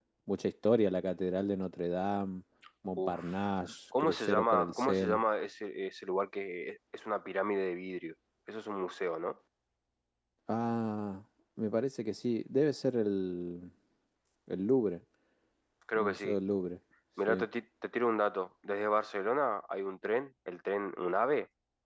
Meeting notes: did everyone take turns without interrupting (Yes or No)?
No